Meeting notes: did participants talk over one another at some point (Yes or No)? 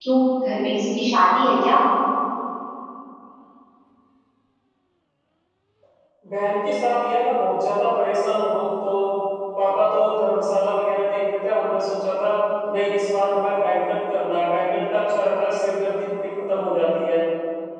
No